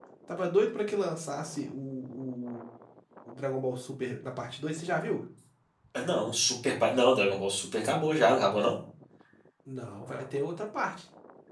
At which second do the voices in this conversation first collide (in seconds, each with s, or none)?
none